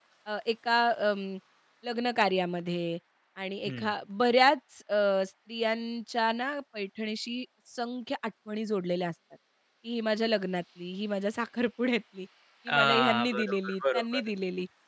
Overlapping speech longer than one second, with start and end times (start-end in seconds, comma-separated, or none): 12.7-14.3